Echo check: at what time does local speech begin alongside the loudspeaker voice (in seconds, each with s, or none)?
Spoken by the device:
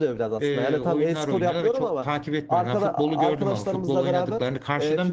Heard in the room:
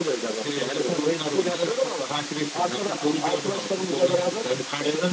none